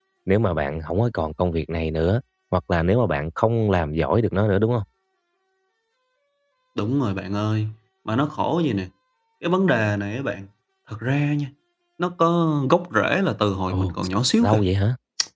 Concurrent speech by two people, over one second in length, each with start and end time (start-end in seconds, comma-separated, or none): none